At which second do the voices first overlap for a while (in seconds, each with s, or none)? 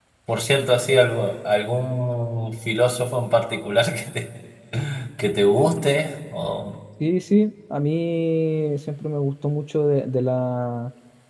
none